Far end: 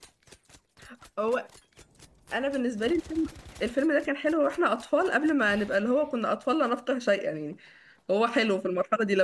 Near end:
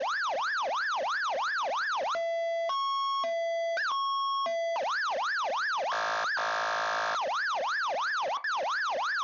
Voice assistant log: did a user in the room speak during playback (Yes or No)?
No